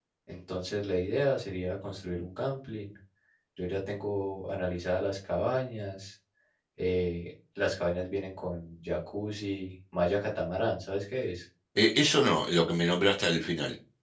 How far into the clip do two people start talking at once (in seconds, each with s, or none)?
none